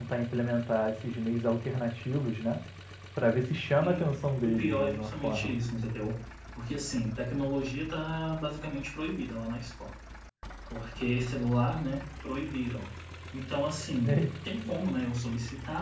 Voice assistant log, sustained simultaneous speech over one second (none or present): present